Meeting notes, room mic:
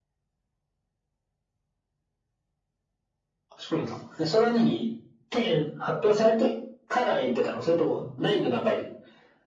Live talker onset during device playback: 8 s

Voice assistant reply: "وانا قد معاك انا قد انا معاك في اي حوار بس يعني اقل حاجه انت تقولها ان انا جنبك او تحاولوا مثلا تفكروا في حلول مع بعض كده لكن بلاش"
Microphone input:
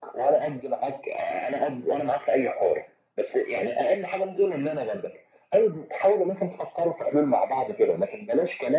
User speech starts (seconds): none

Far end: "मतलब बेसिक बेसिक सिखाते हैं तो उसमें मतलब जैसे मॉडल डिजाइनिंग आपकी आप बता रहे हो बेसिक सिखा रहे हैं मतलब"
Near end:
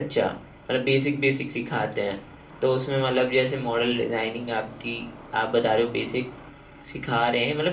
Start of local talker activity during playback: none

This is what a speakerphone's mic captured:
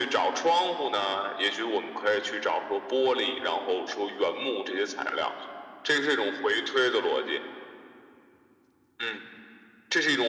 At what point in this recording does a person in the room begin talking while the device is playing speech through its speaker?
none

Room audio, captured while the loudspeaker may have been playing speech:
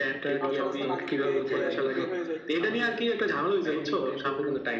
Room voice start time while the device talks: 0 s

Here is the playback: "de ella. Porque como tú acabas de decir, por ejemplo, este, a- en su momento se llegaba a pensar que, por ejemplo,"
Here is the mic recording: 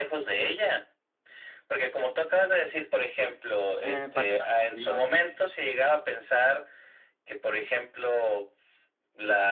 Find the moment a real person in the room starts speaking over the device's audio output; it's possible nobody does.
4 s

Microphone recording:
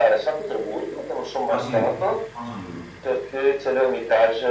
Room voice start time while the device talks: 1 s

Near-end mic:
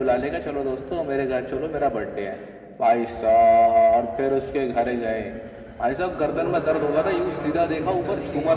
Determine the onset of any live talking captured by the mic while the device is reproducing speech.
6 s

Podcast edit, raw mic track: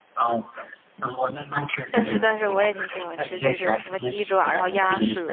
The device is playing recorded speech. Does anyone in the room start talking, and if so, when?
2 s

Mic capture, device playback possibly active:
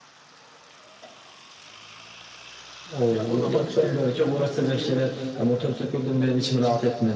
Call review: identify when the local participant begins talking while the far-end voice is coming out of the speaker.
3 s

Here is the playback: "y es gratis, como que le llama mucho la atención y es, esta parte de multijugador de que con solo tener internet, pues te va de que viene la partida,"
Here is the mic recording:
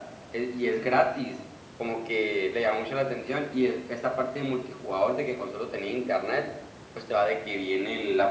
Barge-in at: none

